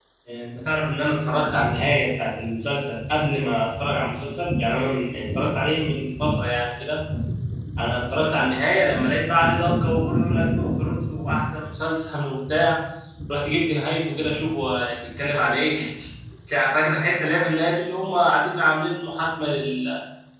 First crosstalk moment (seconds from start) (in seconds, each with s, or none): none